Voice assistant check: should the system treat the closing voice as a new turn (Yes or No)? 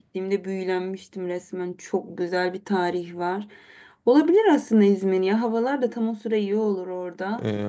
Yes